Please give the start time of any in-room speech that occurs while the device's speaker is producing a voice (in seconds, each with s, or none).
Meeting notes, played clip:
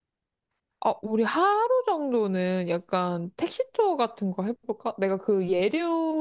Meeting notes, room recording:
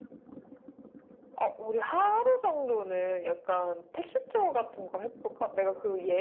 none